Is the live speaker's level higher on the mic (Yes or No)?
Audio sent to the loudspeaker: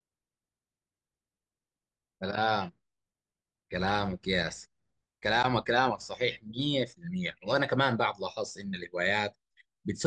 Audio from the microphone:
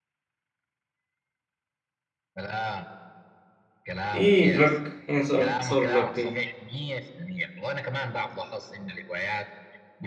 Yes